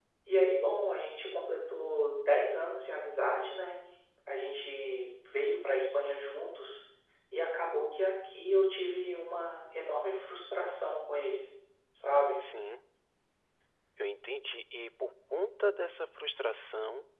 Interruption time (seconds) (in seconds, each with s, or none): none